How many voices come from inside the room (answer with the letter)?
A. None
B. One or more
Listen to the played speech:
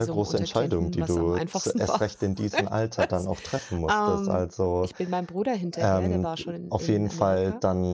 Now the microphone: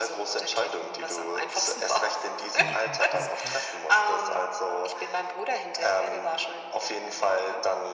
B